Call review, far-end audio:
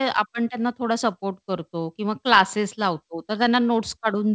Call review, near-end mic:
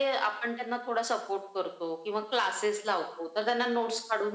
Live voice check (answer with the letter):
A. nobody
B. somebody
A